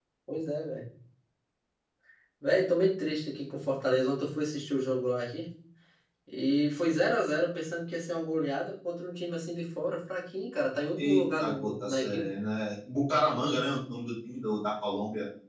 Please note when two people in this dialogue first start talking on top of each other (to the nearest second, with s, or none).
11 s